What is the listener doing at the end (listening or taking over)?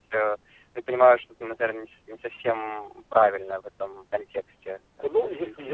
taking over